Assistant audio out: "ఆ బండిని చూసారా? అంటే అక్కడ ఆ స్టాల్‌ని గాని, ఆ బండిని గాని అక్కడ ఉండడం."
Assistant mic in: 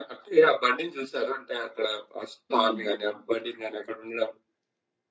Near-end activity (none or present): present